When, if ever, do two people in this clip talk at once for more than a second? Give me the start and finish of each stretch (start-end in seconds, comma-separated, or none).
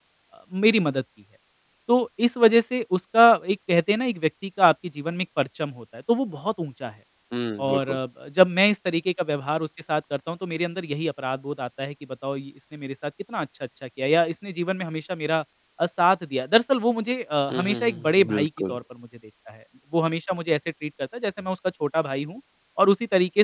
17.5-18.8